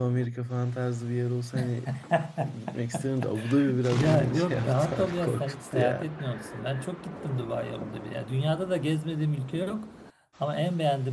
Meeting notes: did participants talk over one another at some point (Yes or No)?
Yes